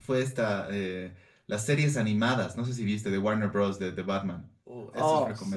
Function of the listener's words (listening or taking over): taking over